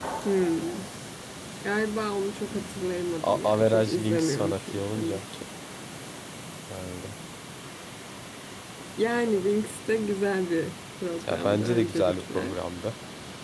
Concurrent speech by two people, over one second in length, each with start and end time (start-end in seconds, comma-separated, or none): 3.2-5.2, 11.3-12.6